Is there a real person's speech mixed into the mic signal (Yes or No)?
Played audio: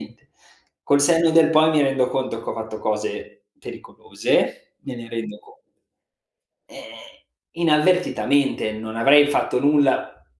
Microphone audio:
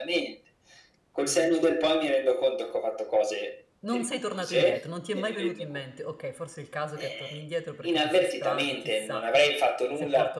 Yes